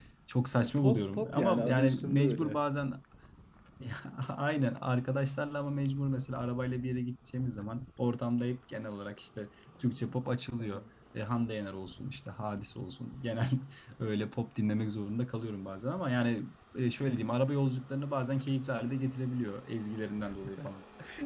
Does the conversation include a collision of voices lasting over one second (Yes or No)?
Yes